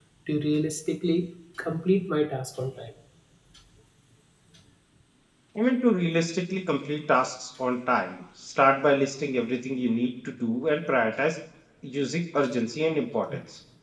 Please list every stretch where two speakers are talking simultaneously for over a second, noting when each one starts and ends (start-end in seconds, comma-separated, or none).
none